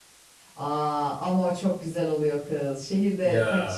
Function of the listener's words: listening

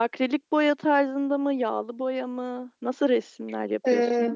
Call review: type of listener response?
taking over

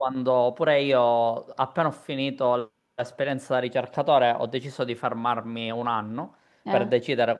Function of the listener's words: listening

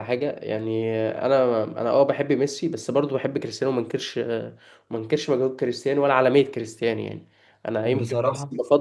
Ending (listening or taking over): listening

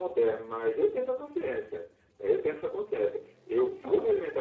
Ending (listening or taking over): listening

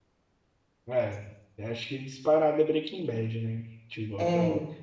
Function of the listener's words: listening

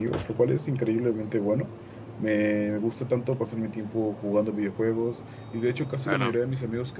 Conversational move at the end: listening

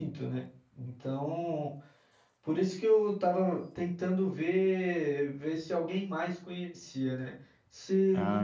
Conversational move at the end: listening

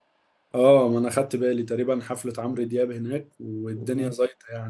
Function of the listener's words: listening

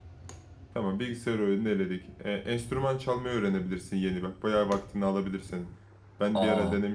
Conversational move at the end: listening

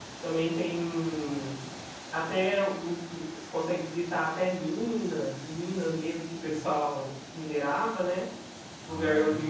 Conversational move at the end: listening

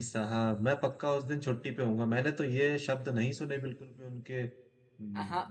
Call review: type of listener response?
taking over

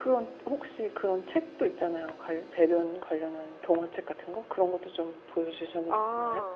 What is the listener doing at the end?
taking over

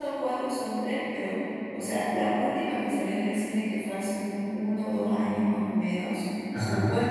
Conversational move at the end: listening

